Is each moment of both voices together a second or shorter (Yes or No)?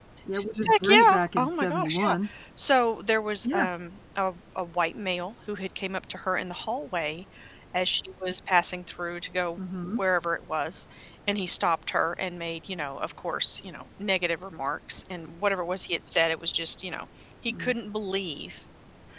No